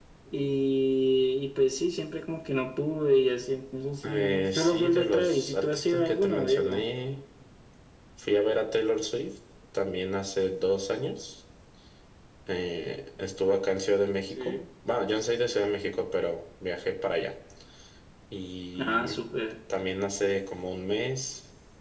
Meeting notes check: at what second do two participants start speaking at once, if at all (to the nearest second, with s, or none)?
4 s